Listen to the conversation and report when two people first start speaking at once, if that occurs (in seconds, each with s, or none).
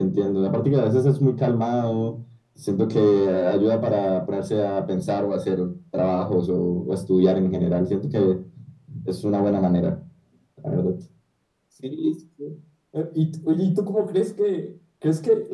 none